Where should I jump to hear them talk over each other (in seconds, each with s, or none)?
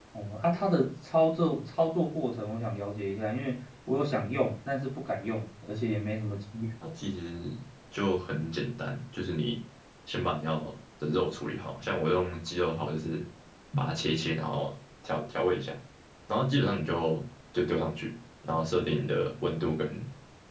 none